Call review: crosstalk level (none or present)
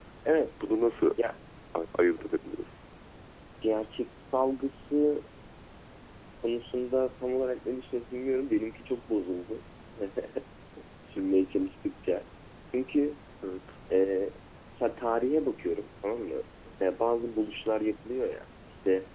none